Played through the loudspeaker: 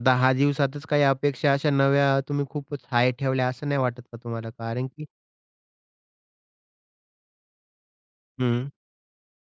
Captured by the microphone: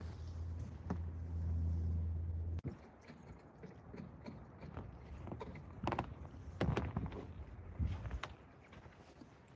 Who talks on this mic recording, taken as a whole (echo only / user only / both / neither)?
neither